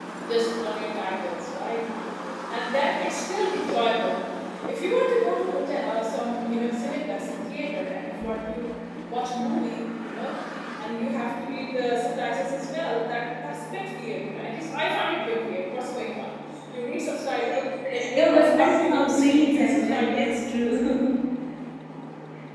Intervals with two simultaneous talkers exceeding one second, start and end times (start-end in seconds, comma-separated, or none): 18.1-20.3